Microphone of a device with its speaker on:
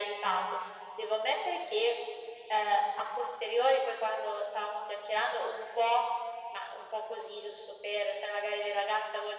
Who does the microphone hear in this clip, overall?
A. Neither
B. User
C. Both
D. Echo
D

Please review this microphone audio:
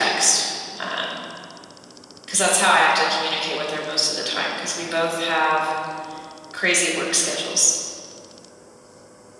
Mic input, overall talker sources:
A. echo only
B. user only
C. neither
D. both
A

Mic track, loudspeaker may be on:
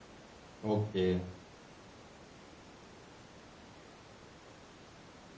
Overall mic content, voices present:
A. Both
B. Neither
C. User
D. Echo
C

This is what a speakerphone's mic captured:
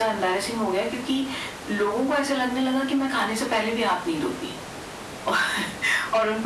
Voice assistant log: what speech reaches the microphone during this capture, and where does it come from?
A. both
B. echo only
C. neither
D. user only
B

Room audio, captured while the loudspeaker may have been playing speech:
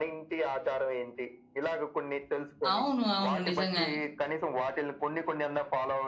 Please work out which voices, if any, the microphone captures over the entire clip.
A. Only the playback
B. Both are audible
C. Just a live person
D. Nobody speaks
B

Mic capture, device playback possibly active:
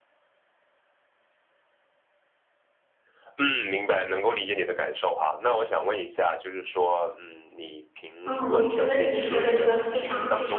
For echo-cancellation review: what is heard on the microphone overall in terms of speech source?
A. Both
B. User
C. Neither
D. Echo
A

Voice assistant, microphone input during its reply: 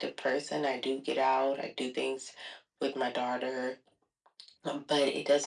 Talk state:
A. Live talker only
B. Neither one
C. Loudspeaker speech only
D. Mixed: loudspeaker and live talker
C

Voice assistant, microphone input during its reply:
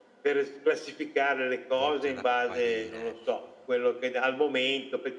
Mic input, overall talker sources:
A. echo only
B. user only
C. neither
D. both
D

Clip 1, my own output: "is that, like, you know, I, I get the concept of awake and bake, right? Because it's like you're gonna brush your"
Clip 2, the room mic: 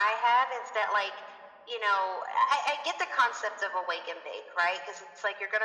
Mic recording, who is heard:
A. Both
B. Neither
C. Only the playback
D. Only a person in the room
C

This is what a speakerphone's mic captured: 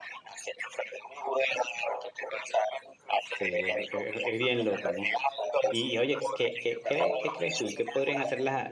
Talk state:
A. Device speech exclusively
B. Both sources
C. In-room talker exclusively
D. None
B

